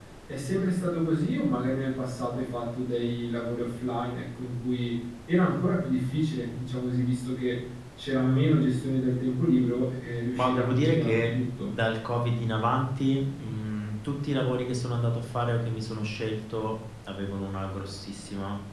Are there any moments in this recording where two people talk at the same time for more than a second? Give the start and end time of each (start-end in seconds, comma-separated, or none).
10.3-11.8